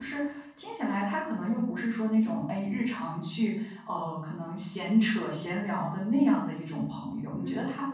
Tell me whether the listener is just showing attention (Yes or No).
Yes